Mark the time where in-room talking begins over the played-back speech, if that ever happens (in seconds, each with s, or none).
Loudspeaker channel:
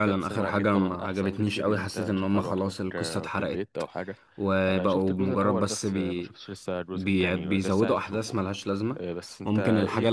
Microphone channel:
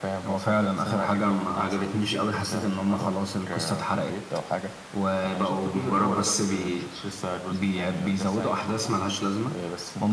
none